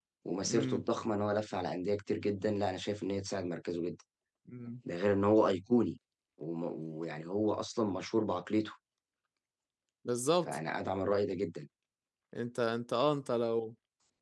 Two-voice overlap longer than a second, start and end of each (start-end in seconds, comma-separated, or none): none